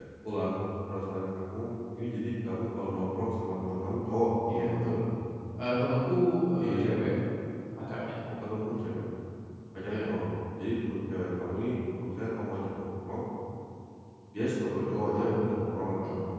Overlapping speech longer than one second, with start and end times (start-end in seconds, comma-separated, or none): none